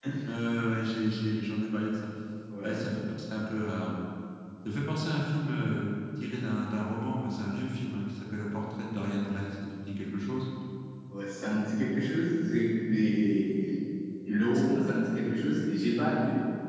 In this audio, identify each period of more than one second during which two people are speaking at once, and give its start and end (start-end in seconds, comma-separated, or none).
none